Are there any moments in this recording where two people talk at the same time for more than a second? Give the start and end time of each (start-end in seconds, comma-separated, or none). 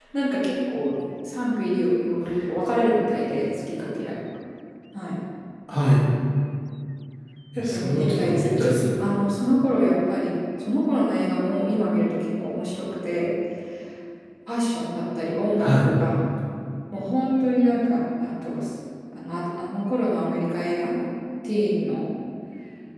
7.6-9.1